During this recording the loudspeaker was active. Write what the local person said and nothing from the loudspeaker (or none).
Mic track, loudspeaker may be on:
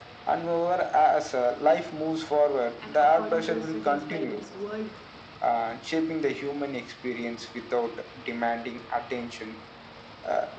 and according to the studies by this world